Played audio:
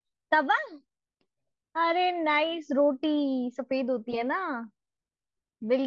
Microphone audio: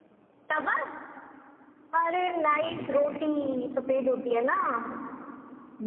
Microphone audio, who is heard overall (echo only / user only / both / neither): both